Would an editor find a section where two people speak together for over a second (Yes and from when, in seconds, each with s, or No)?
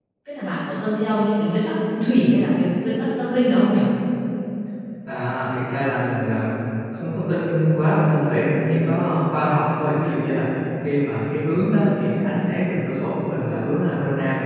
No